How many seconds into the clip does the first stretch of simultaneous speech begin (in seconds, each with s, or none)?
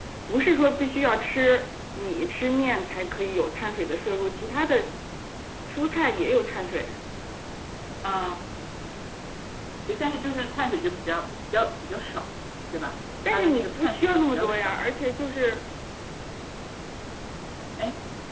13.2 s